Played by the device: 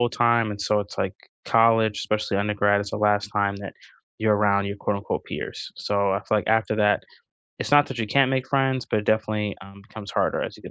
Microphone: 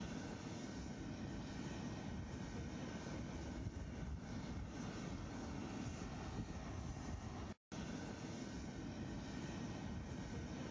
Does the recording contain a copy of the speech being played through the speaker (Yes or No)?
No